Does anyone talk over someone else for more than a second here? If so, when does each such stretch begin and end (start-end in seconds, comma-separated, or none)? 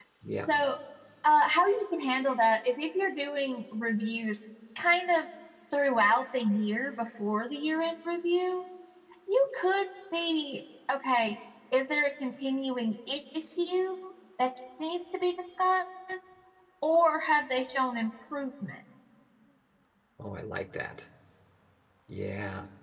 none